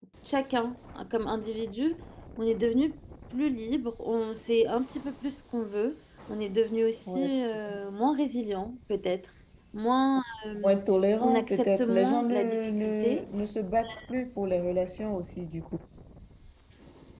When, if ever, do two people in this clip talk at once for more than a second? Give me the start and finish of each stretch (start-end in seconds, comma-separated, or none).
11.2-13.3